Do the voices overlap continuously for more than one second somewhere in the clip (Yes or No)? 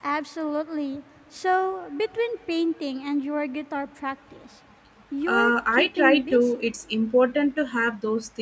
Yes